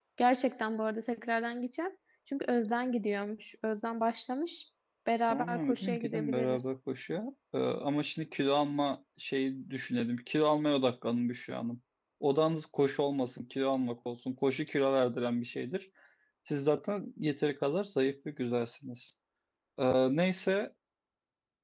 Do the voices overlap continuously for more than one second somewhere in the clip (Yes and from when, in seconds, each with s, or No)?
Yes, from 5.3 s